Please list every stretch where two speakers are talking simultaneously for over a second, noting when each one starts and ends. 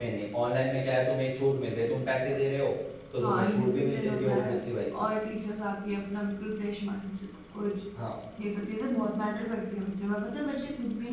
3.2-4.6

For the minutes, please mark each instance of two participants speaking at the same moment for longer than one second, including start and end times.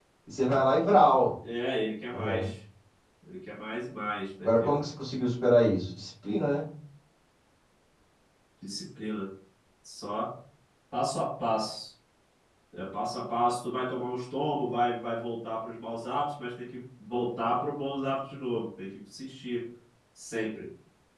none

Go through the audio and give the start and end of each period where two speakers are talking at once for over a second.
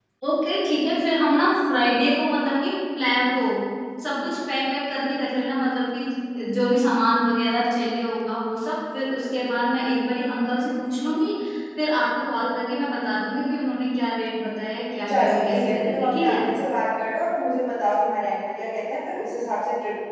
15.1-16.4

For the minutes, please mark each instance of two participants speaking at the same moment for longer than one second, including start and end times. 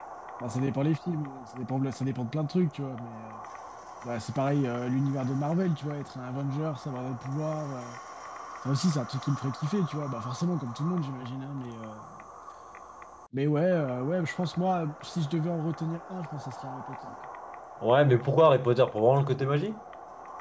none

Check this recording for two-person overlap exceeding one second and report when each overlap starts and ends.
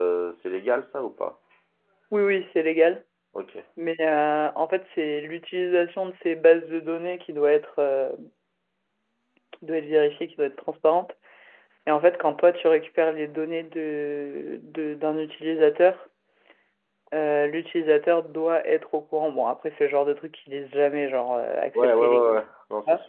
none

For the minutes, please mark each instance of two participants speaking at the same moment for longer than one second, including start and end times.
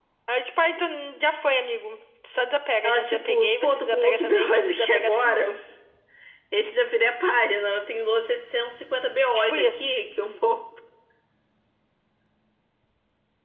2.8-5.5

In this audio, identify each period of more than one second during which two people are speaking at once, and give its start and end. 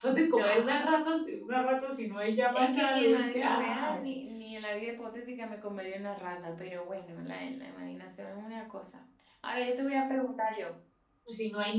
2.5-4.1

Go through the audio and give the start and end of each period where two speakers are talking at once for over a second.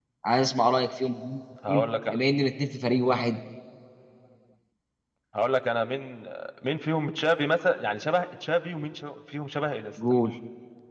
none

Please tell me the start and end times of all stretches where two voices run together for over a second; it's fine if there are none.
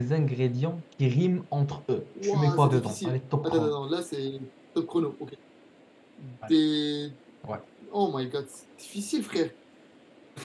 2.2-3.7

